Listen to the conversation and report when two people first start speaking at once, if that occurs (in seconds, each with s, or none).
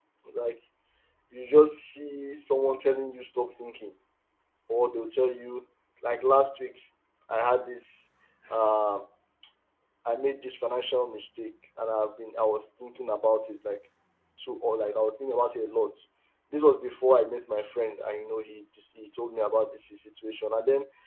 none